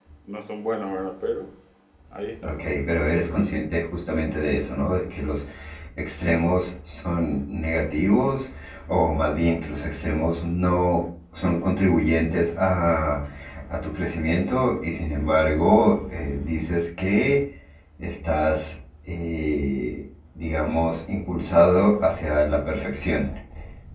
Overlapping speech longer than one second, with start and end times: none

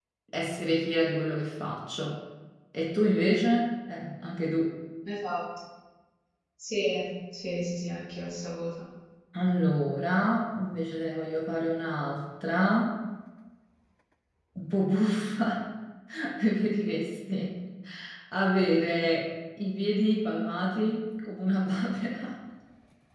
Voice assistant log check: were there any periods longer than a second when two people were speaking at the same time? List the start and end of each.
none

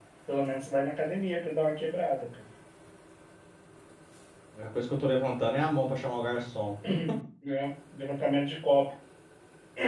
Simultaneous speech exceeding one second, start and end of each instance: none

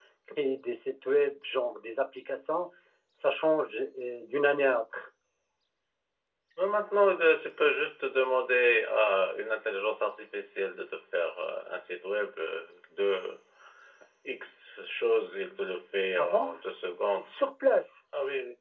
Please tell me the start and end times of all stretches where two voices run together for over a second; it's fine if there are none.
none

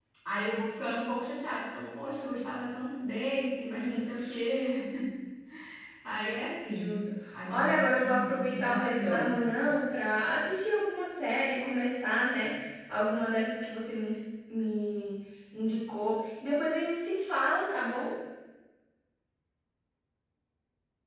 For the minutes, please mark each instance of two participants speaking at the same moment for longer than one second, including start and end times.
7.5-9.4

